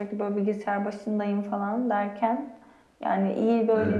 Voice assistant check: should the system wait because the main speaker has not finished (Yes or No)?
Yes